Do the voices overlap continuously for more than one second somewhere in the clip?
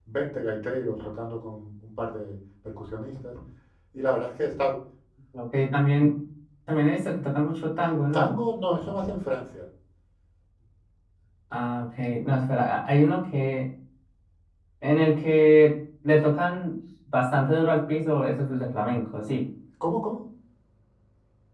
No

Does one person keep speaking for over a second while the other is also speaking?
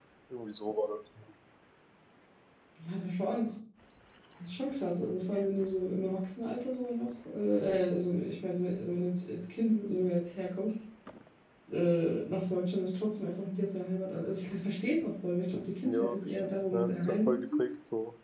Yes, from 15.8 s

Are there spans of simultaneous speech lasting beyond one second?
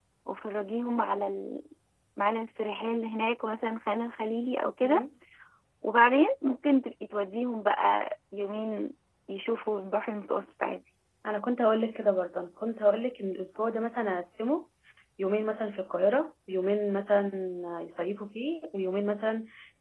No

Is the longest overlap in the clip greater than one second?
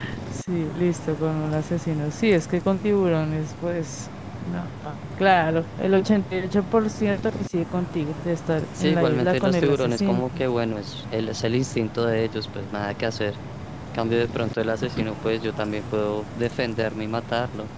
Yes, from 8.8 s

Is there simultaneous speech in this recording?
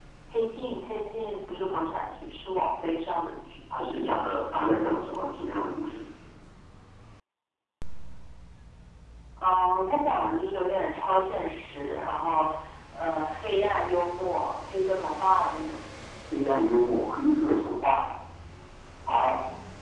No

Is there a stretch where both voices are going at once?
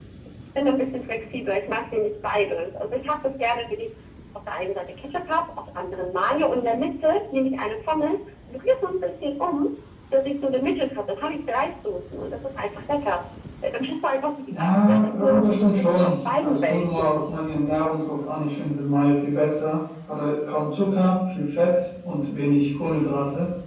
Yes, from 14.5 s

